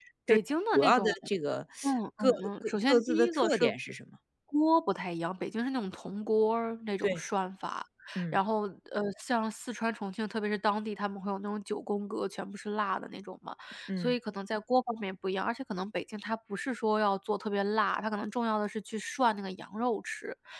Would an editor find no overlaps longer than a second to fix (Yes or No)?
No